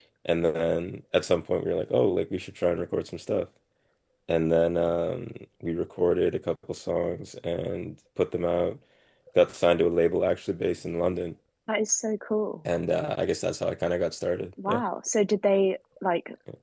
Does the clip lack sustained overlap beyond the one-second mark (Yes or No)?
Yes